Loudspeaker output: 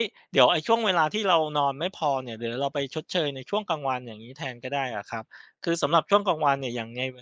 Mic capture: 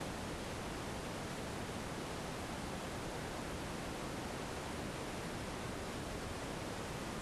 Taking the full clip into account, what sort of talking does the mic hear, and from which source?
neither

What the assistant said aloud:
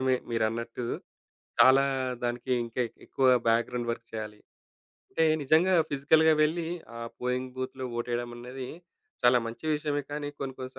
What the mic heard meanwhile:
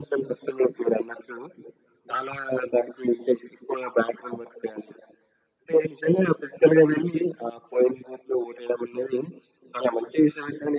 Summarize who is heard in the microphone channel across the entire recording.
echo only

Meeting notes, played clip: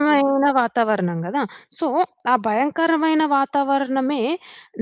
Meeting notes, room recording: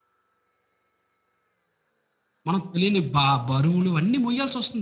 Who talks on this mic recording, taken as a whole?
user only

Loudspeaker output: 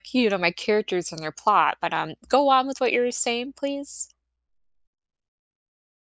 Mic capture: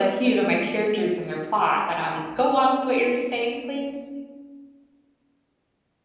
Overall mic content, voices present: echo only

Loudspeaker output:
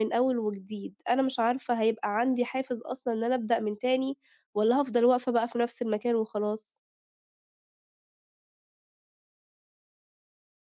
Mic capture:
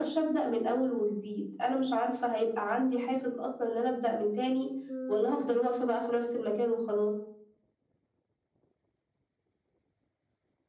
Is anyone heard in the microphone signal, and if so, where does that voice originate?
both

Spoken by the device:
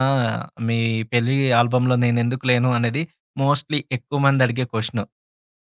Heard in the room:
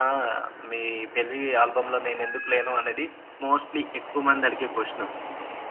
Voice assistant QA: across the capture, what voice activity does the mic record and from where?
echo only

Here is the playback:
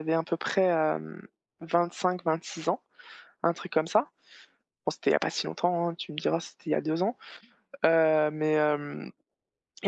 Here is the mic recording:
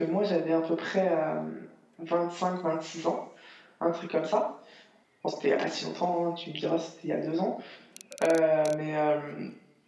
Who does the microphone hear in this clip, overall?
echo only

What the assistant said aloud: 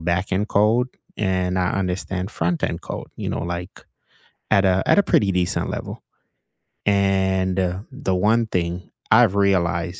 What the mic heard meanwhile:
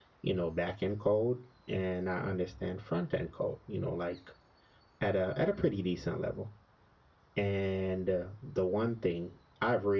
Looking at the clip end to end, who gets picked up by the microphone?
echo only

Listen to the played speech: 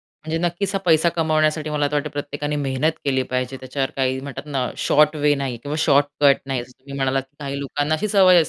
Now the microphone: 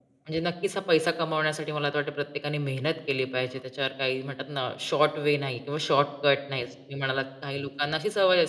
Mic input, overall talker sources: echo only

